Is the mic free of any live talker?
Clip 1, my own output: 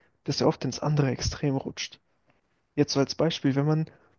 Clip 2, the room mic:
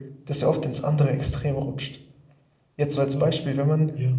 No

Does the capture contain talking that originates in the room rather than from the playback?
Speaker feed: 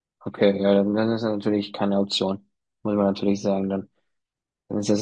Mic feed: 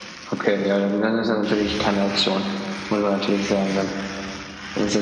No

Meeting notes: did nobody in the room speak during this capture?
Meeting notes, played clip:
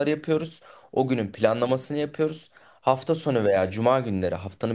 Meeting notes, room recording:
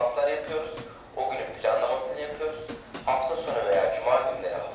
Yes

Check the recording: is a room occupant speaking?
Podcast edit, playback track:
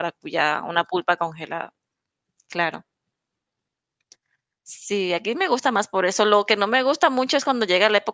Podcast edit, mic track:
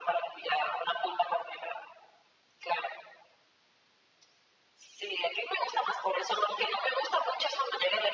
No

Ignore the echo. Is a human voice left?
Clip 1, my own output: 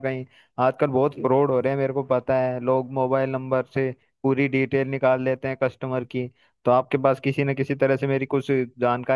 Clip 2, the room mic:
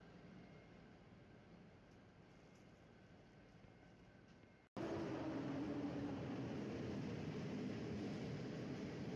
No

